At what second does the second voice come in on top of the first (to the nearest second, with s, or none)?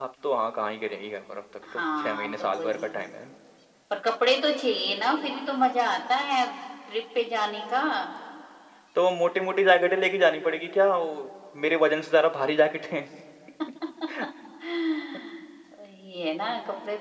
2 s